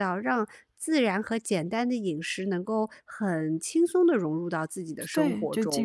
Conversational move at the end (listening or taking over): taking over